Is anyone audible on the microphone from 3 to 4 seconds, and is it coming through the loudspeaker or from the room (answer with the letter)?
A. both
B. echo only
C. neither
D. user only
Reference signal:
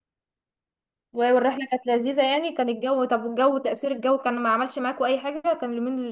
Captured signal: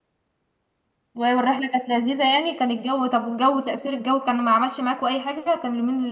B